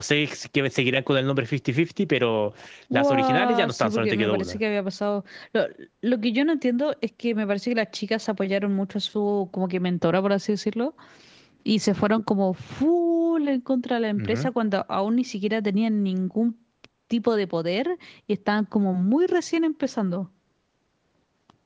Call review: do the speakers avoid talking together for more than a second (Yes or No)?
No